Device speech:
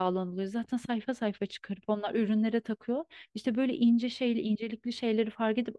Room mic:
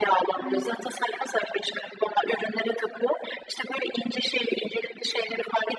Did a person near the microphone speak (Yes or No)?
Yes